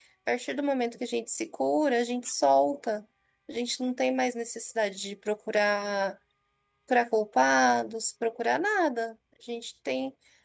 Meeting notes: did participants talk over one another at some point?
No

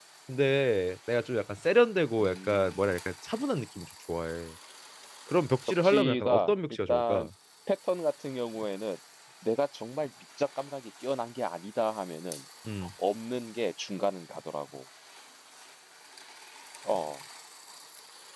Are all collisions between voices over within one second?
No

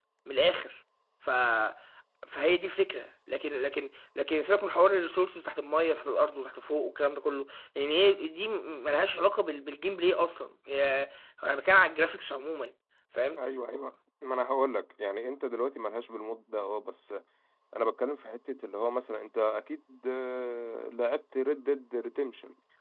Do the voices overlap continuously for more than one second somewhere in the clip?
No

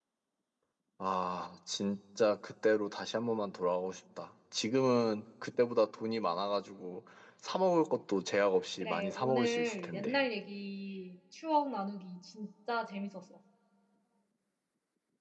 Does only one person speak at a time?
No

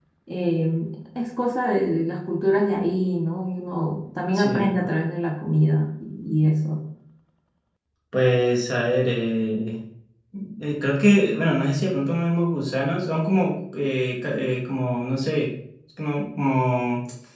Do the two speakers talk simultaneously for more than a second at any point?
No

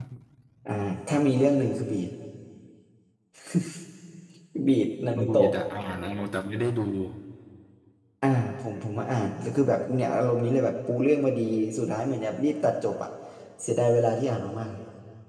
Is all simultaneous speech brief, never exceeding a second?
Yes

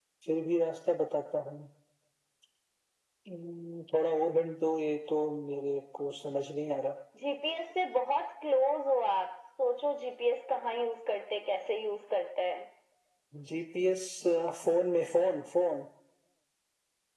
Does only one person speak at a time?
Yes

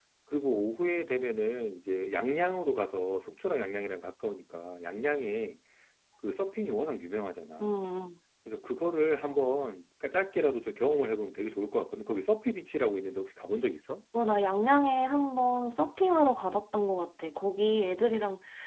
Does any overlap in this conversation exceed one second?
No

